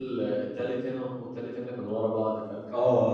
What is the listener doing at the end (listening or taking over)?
taking over